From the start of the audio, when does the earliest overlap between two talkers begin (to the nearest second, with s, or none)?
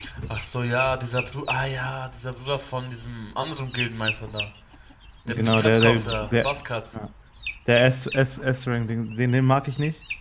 5 s